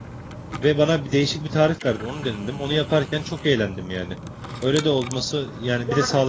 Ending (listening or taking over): taking over